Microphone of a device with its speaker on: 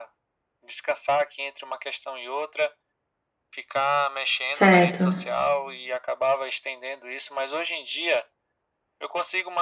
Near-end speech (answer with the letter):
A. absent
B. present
B